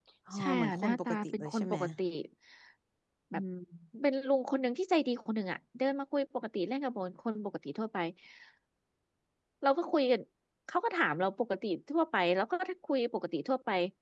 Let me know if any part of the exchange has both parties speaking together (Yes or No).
Yes